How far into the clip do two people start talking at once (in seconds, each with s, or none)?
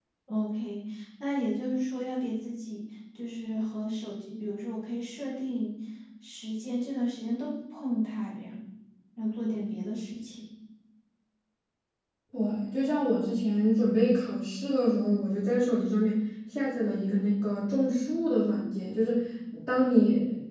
none